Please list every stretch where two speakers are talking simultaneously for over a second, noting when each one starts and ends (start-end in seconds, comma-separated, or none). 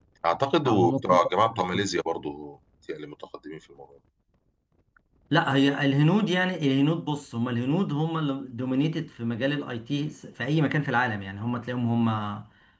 0.6-1.8